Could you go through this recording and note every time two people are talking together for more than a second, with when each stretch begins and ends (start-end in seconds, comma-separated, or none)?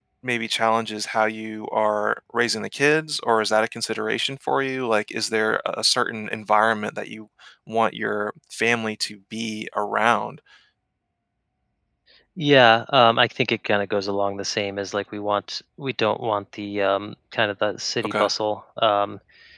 none